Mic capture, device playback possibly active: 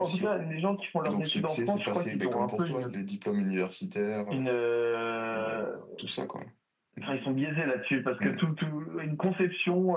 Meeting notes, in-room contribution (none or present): none